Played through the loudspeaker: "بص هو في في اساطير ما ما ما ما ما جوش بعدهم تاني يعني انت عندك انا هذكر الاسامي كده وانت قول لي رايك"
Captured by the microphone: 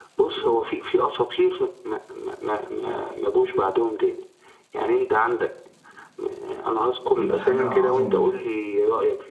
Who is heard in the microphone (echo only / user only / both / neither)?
both